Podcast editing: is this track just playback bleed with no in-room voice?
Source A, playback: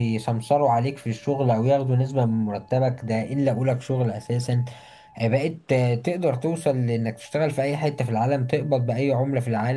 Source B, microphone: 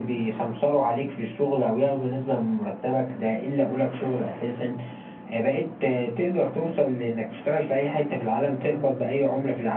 Yes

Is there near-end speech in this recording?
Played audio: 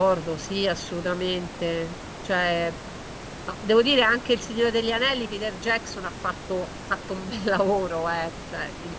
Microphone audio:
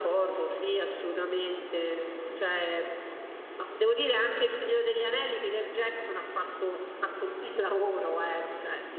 No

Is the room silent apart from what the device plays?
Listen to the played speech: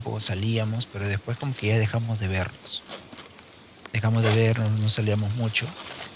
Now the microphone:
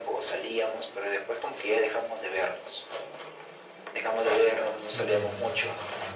No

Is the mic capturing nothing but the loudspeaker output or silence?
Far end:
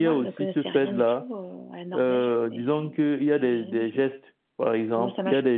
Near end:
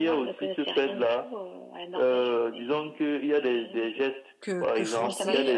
No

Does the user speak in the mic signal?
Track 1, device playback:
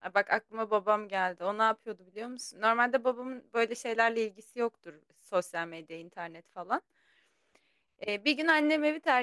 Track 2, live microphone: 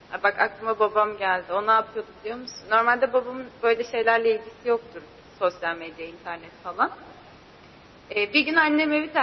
No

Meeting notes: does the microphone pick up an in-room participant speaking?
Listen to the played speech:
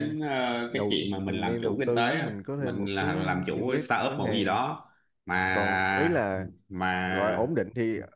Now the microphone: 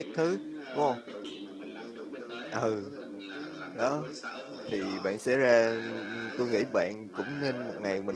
Yes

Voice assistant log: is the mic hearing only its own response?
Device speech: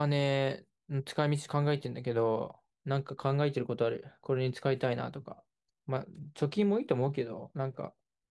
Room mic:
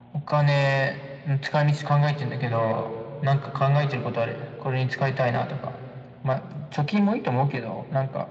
Yes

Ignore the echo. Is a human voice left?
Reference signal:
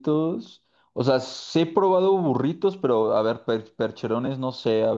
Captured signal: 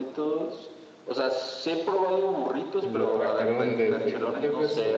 Yes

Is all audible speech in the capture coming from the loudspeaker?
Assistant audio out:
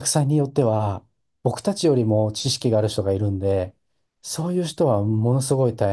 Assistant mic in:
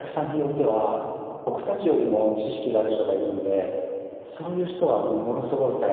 Yes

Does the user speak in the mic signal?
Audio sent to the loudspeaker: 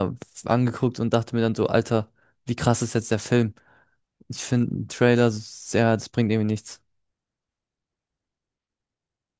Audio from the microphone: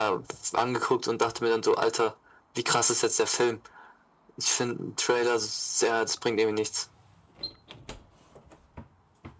No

